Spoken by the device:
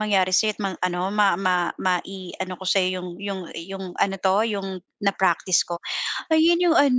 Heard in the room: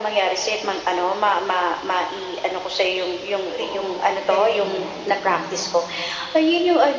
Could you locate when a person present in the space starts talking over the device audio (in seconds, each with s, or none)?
3.6 s